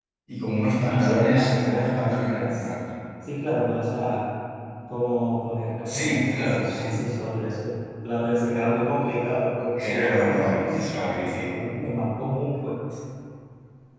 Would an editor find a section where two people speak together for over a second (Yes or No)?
Yes